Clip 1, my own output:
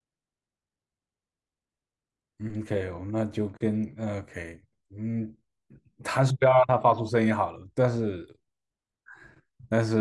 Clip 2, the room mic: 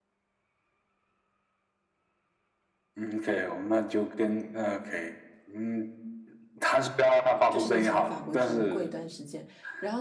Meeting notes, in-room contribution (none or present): present